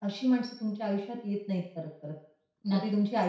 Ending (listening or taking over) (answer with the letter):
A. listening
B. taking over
A